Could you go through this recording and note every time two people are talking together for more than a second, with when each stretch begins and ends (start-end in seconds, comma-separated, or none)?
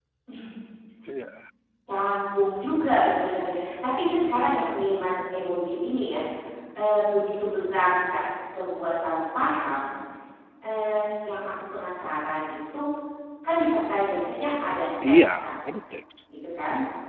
none